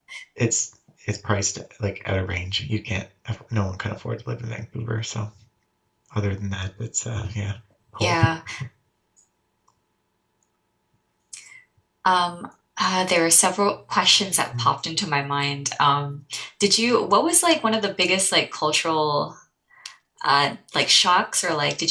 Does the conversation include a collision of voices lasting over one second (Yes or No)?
No